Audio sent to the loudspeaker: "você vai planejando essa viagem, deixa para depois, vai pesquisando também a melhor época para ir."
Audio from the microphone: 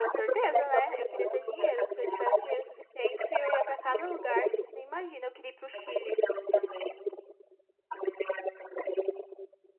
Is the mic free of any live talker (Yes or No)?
No